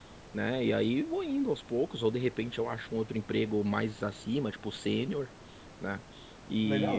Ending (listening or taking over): listening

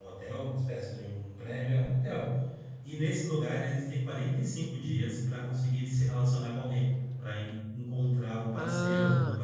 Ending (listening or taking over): taking over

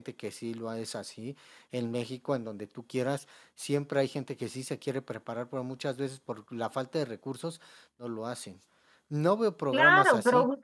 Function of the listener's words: taking over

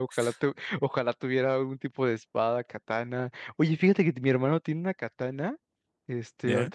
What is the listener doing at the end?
listening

